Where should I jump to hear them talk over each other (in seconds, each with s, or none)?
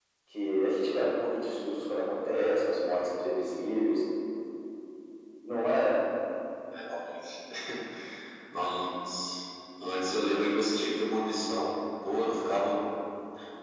none